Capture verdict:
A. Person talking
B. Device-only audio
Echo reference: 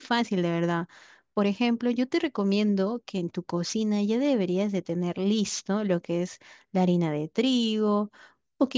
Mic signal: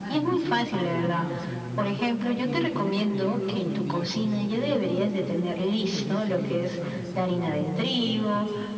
A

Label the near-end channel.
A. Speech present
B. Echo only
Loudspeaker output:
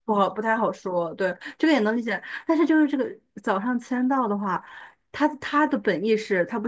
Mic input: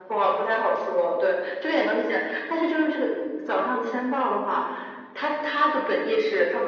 A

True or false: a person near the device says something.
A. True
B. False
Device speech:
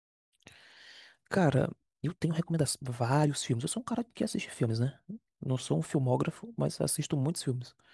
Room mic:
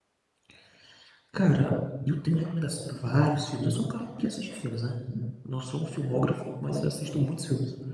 B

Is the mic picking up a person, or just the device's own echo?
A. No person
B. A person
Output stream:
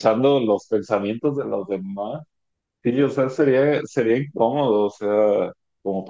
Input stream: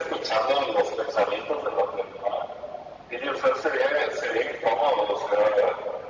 A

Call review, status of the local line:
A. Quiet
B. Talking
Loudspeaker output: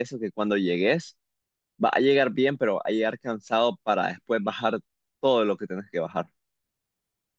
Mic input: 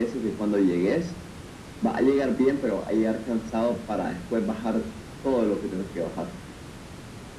A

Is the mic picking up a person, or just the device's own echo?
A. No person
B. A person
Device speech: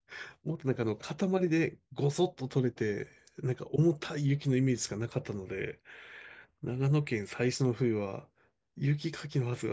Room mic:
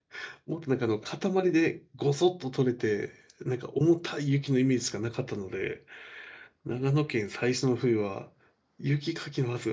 A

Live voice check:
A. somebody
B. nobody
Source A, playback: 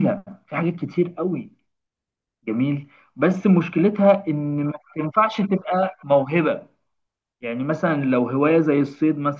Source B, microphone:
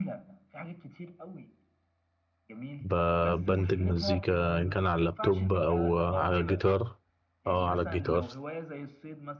A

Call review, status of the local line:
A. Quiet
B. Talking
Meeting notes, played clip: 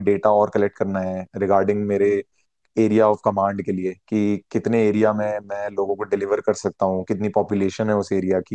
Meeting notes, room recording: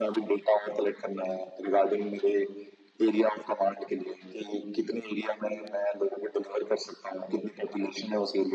A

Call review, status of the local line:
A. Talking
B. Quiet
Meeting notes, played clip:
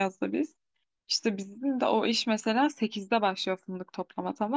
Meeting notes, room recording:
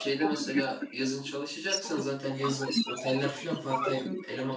A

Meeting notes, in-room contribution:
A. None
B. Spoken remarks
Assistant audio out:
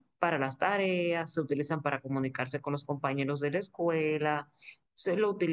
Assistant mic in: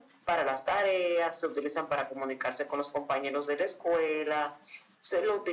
A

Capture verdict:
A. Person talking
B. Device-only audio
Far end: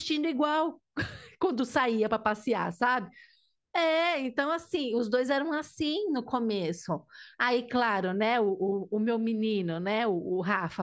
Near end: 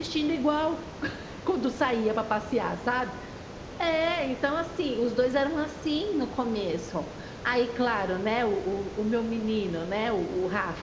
B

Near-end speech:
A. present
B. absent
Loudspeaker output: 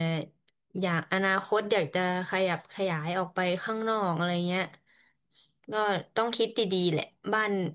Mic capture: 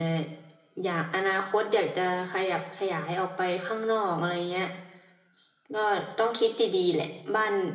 B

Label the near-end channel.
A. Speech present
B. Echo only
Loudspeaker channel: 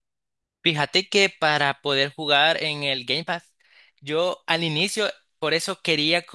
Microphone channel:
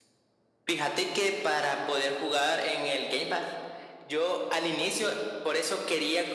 B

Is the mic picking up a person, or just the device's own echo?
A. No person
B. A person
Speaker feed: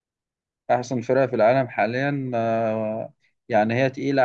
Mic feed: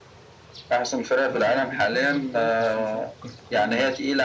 B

